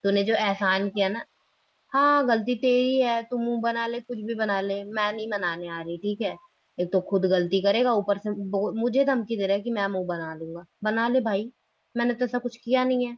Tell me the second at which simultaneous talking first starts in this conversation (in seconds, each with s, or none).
none